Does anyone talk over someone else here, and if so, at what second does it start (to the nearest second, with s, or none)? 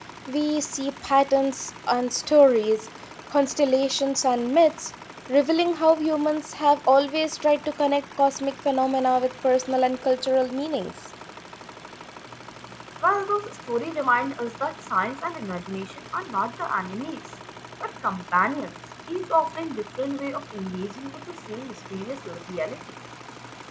none